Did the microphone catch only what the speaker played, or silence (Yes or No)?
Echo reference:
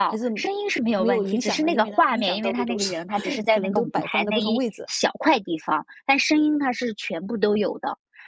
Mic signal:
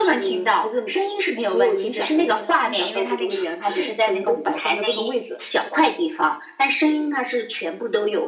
Yes